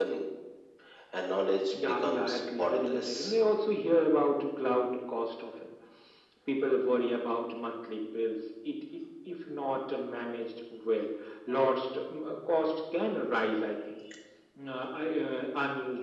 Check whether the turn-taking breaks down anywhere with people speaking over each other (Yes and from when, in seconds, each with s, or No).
Yes, from 1.7 s